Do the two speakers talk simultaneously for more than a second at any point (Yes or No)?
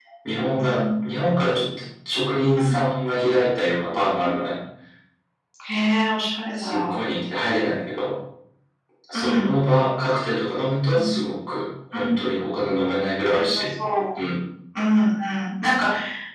No